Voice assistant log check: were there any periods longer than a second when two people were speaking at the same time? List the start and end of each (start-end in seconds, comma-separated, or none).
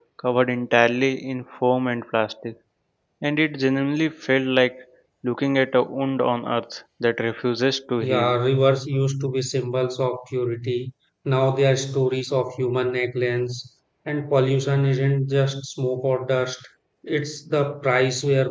none